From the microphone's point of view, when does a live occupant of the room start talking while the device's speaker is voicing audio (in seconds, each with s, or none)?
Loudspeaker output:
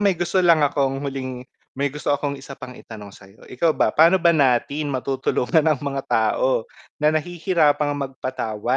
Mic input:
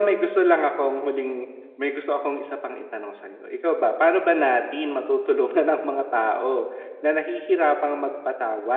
none